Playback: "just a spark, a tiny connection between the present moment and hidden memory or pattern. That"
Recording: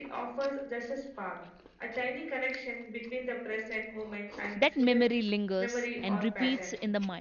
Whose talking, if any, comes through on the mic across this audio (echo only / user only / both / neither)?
both